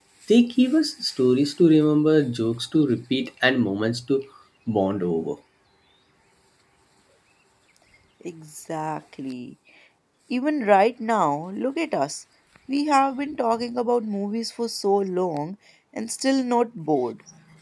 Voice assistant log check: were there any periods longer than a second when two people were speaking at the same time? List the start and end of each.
none

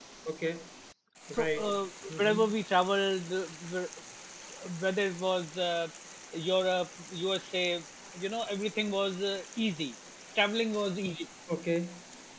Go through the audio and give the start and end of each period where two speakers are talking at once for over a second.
none

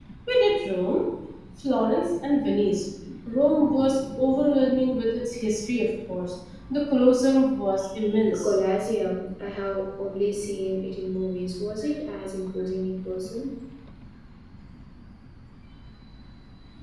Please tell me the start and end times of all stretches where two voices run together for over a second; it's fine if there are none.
none

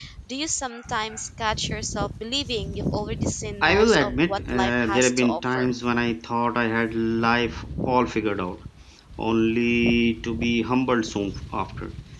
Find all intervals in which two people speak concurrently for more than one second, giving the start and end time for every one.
3.6-5.7

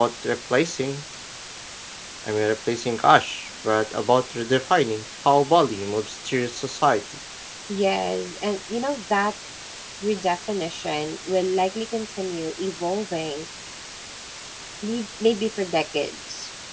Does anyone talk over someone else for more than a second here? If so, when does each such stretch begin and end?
none

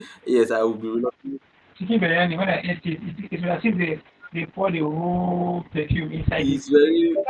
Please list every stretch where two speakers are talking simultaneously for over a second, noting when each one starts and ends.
none

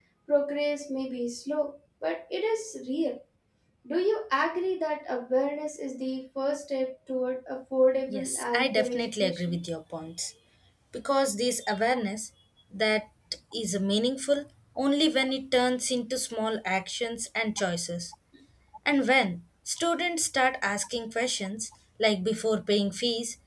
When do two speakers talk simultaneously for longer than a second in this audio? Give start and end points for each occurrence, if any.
8.1-9.6

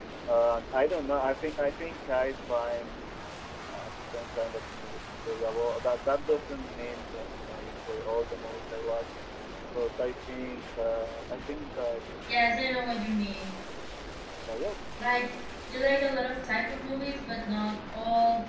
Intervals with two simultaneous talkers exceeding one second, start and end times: none

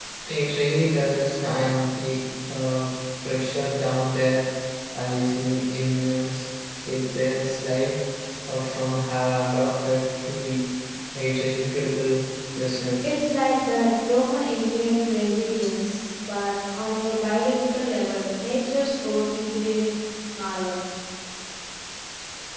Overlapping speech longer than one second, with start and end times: none

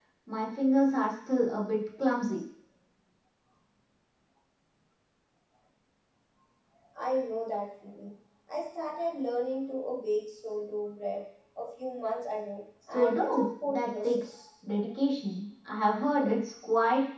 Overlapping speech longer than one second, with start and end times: 12.9-14.2

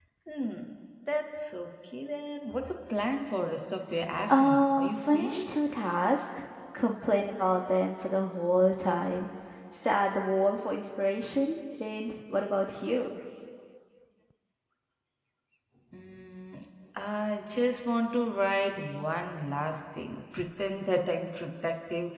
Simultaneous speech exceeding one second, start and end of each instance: 4.3-5.5

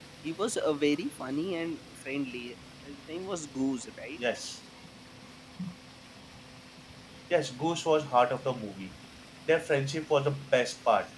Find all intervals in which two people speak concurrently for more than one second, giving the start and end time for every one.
none

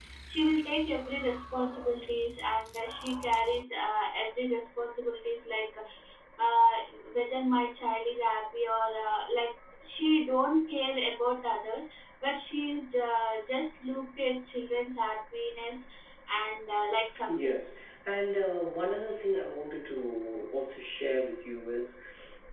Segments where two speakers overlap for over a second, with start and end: none

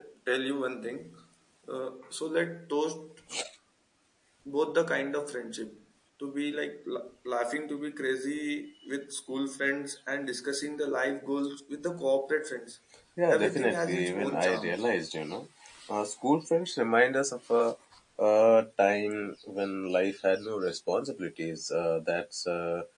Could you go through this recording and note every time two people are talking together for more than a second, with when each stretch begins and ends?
13.3-14.8

